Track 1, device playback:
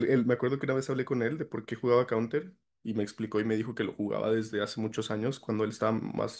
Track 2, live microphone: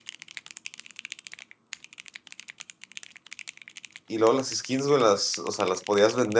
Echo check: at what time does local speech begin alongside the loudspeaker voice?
4.1 s

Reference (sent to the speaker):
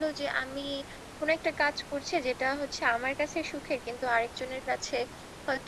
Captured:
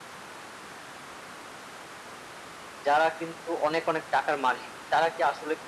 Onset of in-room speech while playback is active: 2.9 s

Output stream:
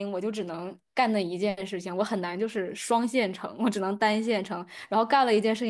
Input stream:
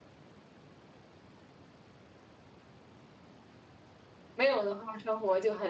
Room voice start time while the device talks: 4.3 s

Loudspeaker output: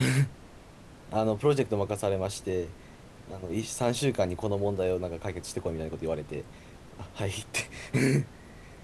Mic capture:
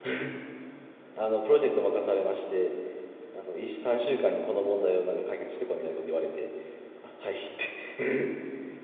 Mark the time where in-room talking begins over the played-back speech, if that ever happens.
none

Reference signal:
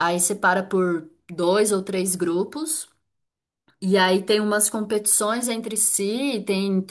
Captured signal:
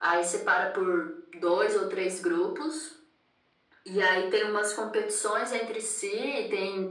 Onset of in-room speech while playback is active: none

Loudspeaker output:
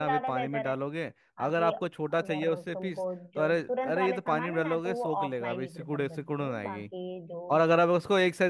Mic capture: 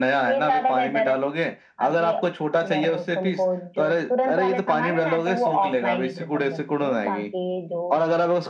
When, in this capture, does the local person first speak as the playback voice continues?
none

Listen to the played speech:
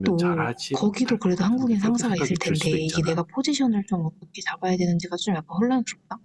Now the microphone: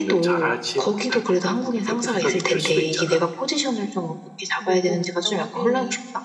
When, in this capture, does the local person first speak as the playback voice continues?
4.6 s

